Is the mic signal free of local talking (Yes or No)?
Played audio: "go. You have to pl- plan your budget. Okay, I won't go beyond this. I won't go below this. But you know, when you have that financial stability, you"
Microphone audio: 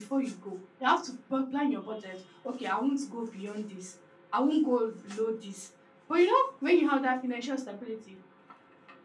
Yes